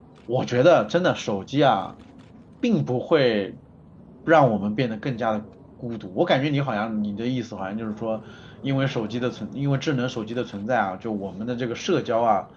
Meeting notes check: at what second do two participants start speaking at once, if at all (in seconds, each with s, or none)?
none